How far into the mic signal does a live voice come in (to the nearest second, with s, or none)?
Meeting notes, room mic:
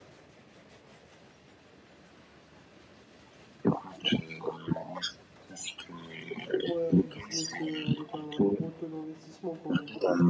7 s